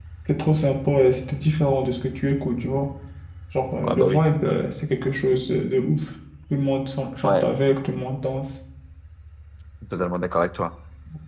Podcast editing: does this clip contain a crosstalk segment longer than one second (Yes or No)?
No